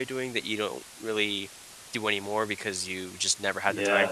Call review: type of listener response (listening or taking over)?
taking over